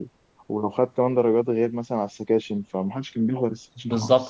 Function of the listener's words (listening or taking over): taking over